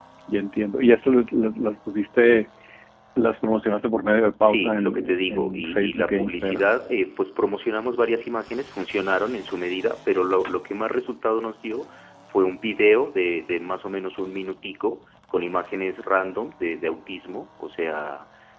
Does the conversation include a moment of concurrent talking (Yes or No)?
Yes